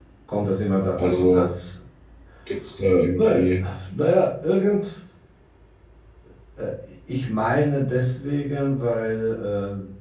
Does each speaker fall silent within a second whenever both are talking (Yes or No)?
Yes